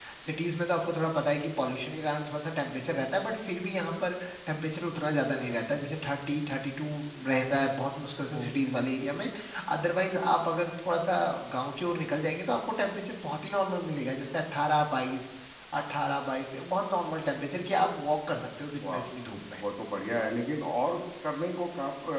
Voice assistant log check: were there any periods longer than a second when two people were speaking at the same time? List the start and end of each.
none

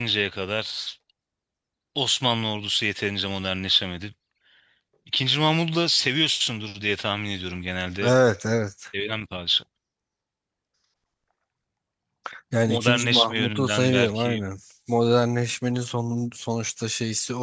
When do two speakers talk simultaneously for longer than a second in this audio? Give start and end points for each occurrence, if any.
12.7-14.4

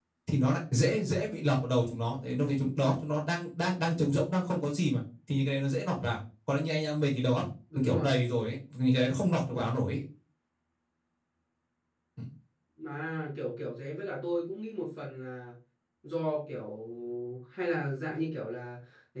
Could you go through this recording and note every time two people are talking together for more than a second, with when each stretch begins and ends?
none

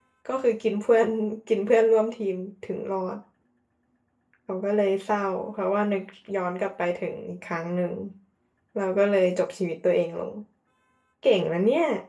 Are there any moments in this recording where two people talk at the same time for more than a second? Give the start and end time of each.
none

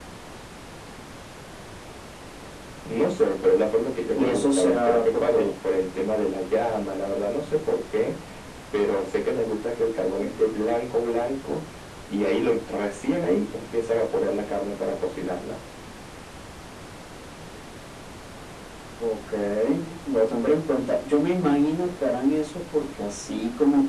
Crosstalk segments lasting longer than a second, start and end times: 4.1-5.5

